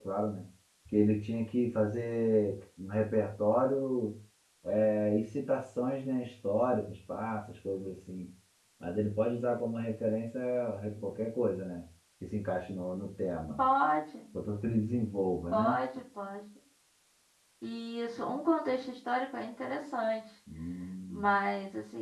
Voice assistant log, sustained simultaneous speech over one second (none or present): none